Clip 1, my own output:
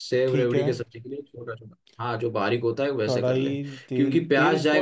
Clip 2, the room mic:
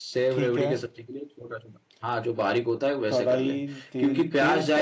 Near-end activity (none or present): none